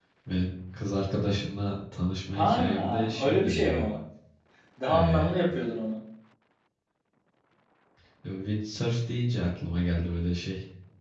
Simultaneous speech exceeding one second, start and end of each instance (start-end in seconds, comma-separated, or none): 2.3-3.8